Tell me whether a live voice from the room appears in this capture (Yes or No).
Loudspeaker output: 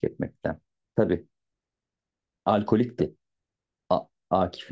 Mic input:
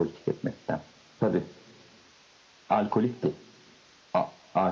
No